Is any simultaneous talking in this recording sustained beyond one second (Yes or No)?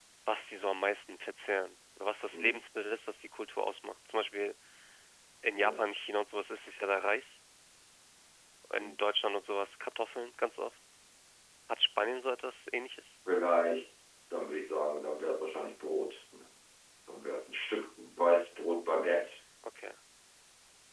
No